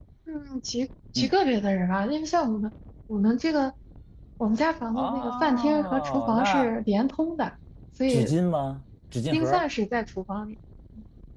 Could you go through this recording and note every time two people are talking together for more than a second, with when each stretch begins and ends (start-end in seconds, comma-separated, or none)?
4.9-6.7